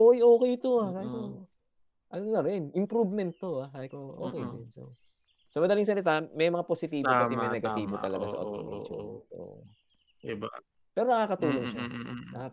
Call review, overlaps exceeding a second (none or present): present